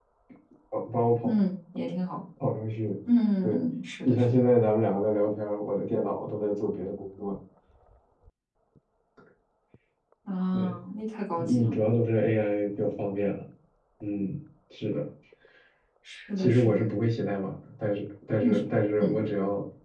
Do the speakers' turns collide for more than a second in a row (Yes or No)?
No